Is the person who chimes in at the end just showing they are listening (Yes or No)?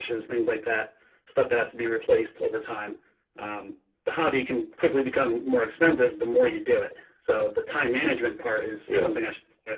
Yes